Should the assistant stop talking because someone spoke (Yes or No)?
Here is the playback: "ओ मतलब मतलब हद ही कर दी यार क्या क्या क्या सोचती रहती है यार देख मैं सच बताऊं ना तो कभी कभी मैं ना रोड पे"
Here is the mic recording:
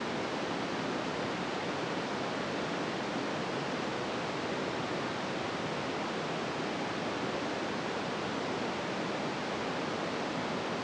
No